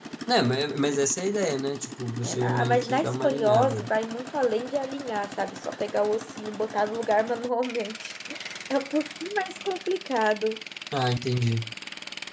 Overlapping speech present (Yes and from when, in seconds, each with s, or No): Yes, from 2.2 s